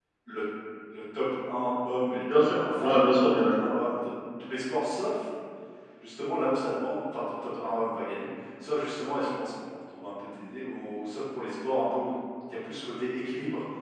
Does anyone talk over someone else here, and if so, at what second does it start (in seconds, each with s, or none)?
2.3 s